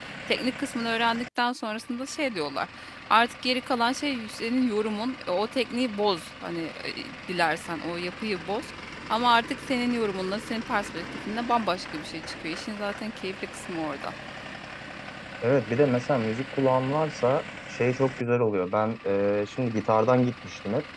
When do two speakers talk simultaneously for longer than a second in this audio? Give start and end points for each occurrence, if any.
none

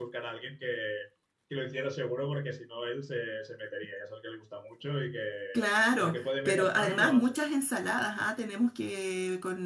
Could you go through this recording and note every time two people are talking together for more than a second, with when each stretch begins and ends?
6.0-7.4

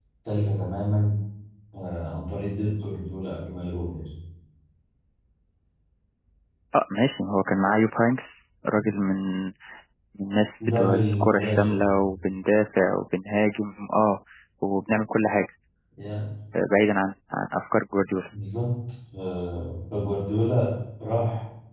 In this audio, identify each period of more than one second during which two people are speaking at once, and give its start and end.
10.7-11.9

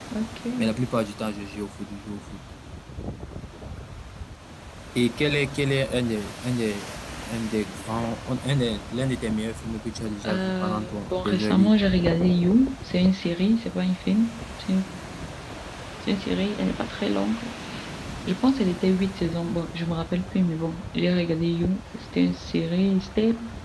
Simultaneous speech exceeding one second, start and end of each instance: 10.3-11.7

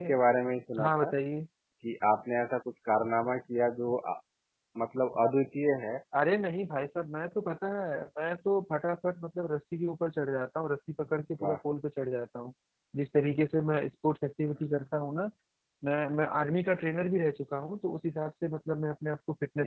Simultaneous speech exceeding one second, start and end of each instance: none

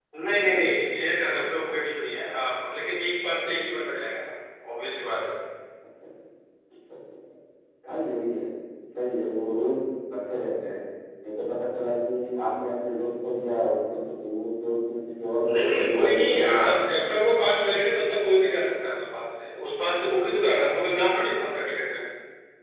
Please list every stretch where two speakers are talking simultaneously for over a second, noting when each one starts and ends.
15.4-16.8

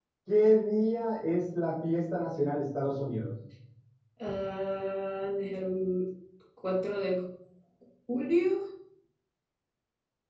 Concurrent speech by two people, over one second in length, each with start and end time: none

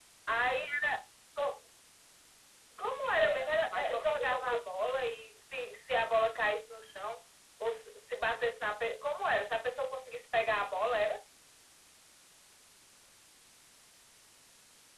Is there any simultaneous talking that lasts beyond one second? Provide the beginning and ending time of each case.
3.2-4.7

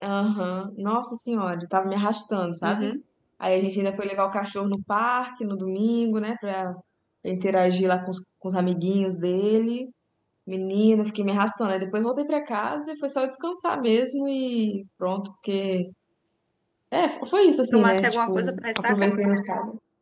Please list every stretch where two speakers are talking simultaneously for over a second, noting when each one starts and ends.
17.7-19.1

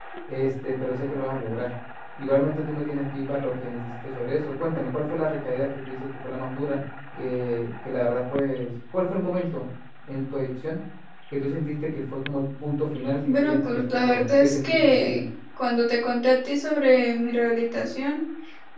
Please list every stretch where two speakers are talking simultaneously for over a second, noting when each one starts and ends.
13.3-15.2

